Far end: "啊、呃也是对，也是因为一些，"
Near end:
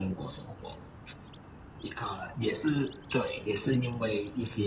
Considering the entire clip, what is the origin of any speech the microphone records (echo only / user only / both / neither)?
echo only